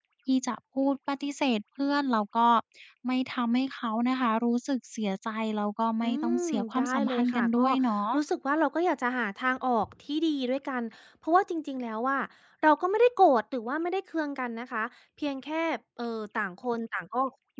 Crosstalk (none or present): present